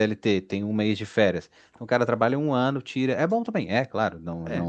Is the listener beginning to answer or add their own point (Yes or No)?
No